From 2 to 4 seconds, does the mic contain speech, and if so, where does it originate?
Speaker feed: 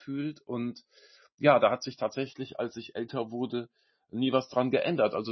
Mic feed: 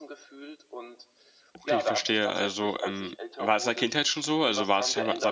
both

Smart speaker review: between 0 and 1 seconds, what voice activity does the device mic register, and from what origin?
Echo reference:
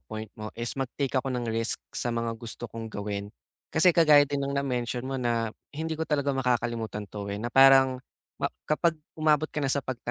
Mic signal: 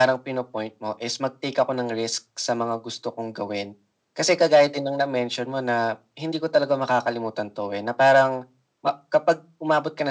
echo only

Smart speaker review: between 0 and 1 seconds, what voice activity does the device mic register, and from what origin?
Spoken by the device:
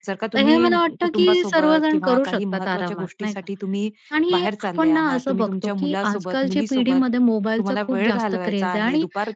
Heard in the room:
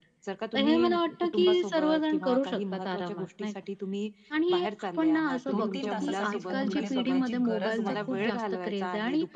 echo only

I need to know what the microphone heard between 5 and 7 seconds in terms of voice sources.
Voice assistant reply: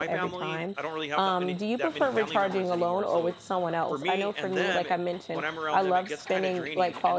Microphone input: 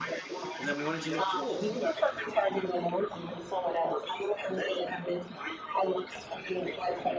echo only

